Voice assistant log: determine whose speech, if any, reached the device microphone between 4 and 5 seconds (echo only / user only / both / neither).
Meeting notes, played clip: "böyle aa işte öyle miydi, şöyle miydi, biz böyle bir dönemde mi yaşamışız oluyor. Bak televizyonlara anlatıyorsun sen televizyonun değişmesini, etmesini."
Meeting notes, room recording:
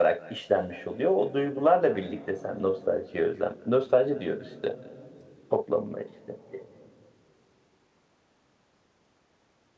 user only